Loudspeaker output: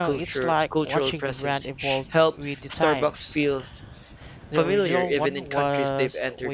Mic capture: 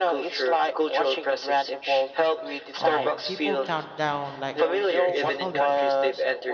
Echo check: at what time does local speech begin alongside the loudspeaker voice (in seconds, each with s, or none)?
2.8 s